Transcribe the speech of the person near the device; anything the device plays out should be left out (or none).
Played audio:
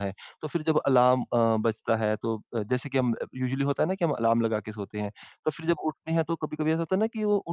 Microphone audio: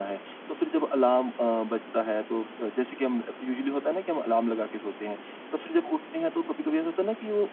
none